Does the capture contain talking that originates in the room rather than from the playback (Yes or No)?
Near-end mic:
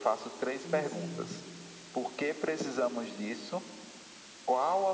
Yes